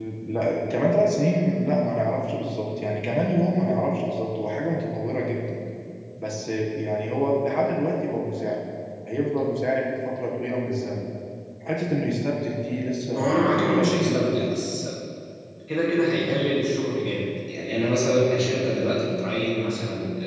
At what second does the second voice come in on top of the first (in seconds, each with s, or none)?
13.1 s